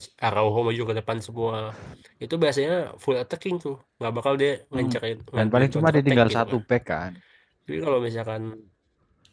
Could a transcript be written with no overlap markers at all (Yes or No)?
No